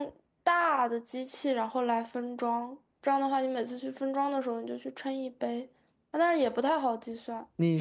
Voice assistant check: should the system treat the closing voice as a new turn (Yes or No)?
Yes